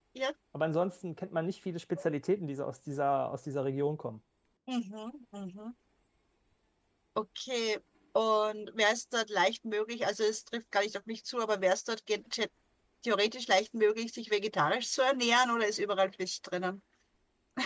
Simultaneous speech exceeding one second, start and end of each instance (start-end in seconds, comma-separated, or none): none